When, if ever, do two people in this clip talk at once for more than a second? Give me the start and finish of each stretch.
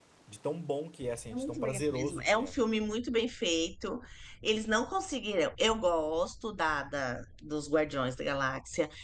1.3-2.6

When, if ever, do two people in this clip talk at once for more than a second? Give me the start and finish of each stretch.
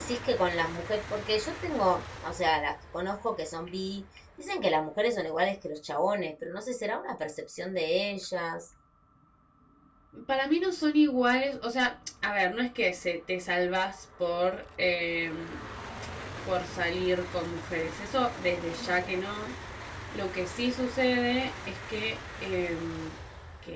none

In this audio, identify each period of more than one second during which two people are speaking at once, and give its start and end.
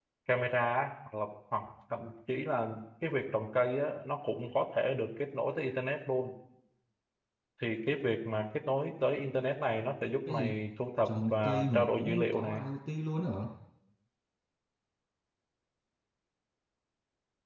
11.1-12.6

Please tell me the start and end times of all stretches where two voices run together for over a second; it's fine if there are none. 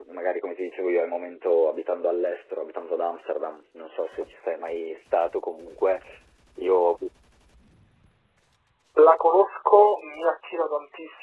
none

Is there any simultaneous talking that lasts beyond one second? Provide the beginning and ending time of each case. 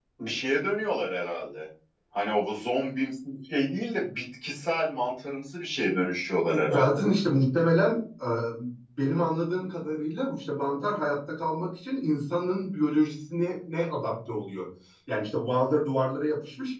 none

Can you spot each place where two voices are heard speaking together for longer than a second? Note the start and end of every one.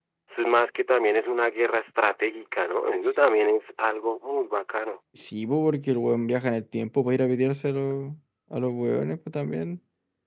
none

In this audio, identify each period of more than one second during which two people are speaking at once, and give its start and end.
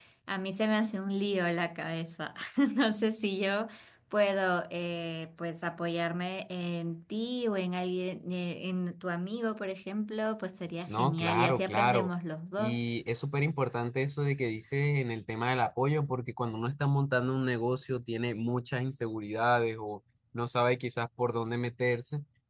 10.9-12.1

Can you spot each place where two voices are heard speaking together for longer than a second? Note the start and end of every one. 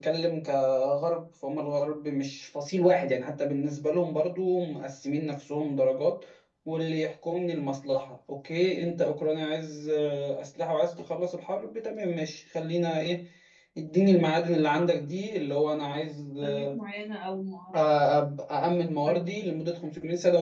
none

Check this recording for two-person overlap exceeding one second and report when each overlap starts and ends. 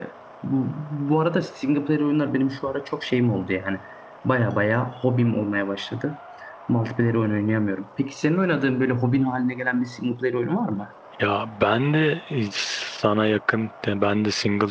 none

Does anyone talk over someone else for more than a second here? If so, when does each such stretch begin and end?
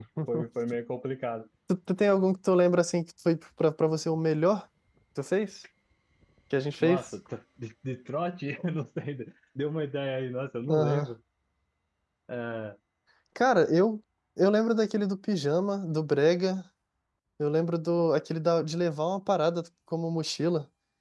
none

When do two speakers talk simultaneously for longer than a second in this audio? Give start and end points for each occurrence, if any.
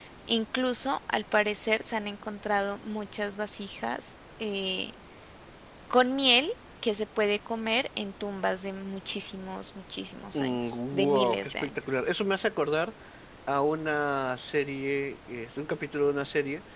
10.3-11.8

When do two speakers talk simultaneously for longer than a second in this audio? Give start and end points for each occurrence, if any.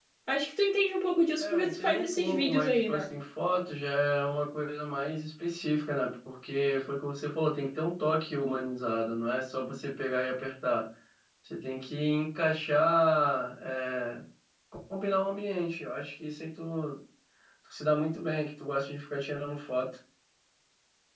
1.4-3.0

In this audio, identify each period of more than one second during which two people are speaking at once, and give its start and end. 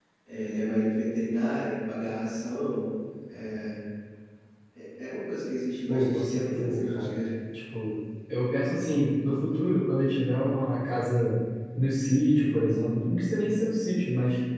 5.9-7.2

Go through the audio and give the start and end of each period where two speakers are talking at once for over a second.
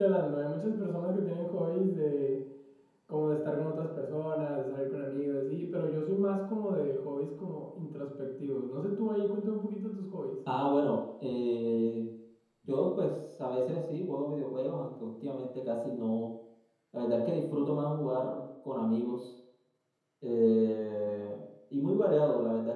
none

